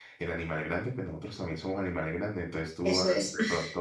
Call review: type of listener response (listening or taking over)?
listening